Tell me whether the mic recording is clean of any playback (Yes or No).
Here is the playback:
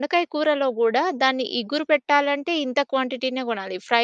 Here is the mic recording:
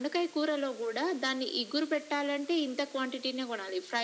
No